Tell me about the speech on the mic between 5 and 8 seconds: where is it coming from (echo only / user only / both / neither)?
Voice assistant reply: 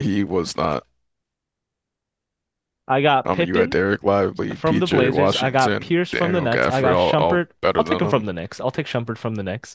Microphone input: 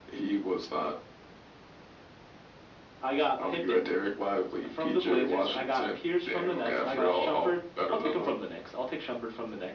echo only